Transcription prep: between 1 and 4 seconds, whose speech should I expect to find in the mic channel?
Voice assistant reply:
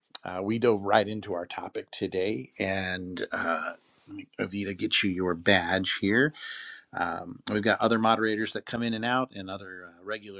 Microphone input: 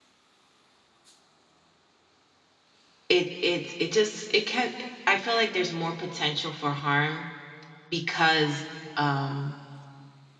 user only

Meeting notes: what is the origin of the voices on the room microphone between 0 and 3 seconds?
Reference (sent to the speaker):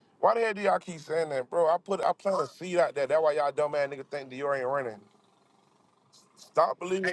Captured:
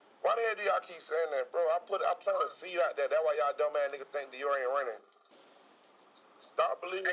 echo only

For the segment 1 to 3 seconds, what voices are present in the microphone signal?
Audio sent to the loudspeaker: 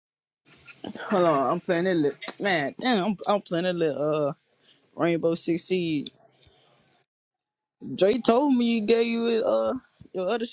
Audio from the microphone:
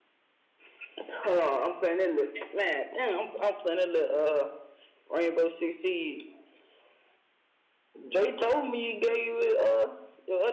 echo only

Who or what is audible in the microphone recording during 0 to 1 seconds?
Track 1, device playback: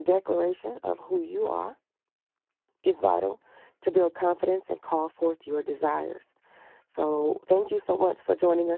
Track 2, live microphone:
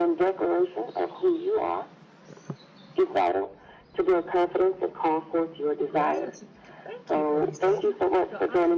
echo only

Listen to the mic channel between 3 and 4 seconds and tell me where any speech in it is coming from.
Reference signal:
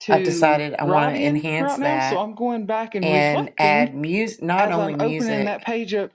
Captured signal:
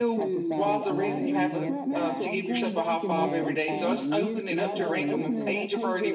both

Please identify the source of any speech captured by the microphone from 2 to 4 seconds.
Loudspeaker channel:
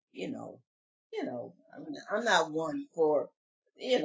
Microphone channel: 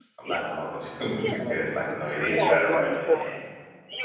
both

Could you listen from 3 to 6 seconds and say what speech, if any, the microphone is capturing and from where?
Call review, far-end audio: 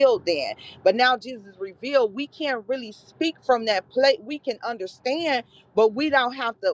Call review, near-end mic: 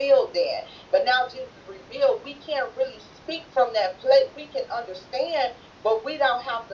echo only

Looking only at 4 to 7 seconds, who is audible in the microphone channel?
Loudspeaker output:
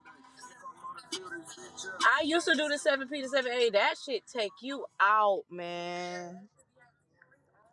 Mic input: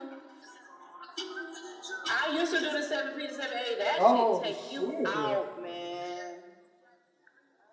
both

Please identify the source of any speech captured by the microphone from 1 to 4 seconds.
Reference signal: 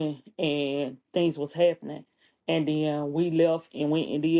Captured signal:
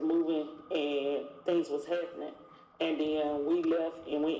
echo only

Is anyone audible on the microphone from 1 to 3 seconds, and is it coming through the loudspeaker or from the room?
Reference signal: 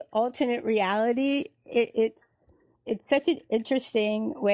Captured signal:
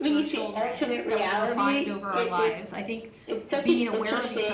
both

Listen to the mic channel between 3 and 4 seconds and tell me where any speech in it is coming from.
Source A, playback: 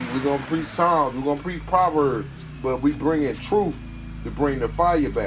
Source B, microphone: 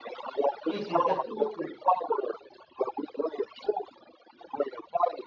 echo only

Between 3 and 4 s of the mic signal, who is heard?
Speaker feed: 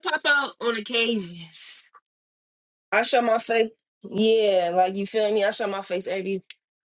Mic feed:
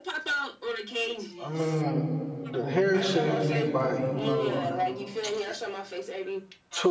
both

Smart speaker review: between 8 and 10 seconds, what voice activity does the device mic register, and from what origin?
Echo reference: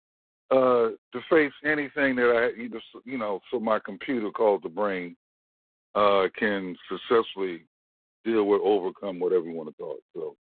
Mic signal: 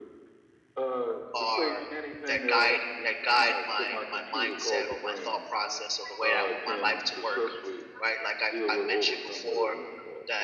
both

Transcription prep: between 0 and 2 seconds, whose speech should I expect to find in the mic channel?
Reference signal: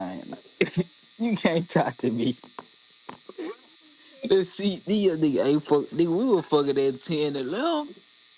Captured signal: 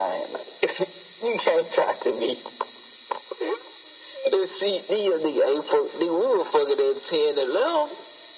echo only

